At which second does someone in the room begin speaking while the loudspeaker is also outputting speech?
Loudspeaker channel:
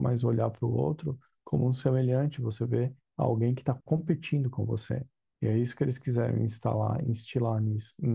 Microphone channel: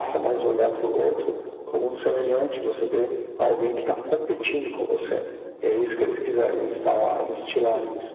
none

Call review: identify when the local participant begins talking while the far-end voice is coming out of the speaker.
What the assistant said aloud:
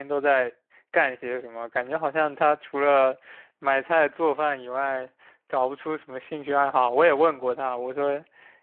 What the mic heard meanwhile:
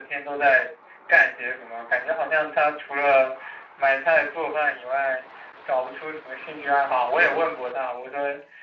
none

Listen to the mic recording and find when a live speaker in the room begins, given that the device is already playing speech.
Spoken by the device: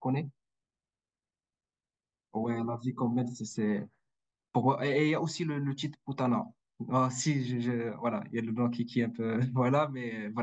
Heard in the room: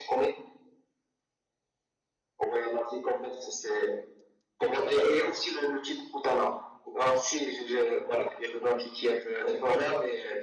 none

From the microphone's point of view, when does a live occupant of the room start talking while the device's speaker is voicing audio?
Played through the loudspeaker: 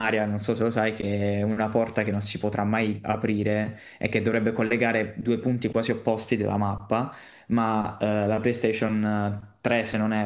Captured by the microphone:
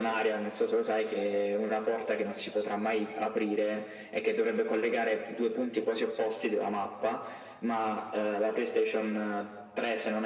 none

